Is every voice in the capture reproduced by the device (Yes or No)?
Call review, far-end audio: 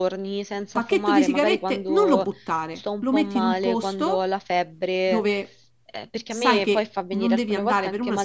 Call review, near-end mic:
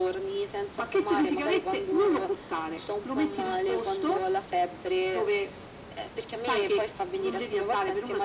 Yes